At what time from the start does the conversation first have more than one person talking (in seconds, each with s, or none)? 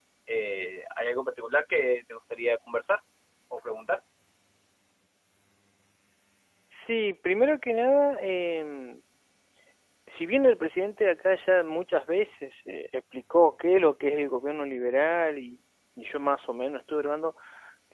none